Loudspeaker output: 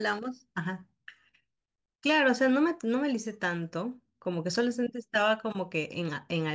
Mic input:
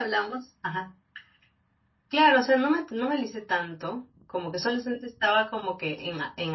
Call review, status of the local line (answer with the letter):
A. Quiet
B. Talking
A